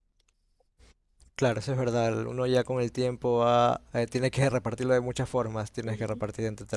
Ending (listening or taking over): listening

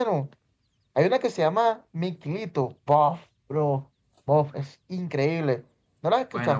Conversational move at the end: taking over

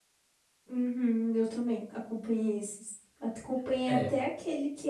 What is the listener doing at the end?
listening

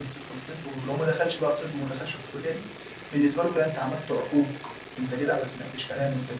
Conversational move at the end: listening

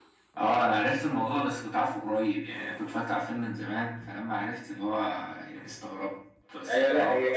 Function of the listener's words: taking over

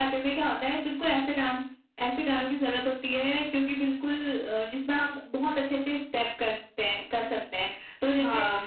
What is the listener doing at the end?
listening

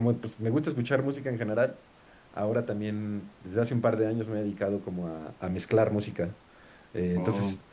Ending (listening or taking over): listening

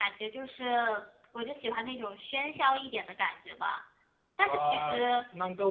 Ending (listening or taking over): taking over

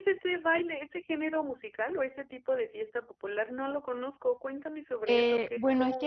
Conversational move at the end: taking over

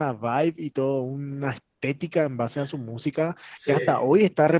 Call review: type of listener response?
listening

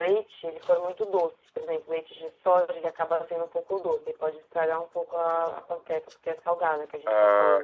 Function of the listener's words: taking over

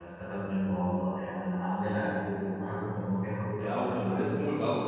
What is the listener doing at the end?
taking over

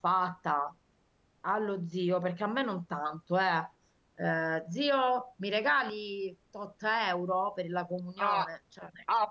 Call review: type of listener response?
taking over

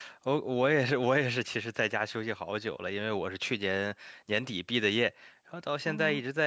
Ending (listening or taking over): listening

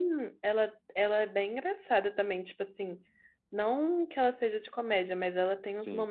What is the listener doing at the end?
listening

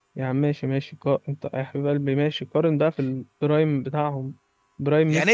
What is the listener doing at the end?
taking over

